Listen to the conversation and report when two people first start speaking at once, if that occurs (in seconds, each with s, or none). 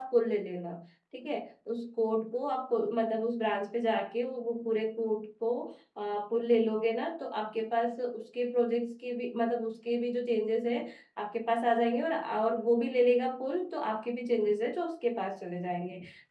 none